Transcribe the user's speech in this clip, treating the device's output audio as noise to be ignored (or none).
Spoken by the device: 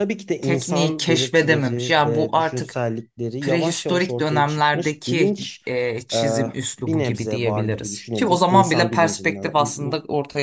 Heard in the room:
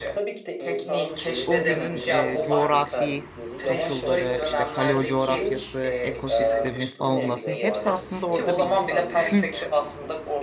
o günün e, coğrafi koşulları, işte paleo coğrafyası, ekosistemi, faunası hepsi aslında orada bir kült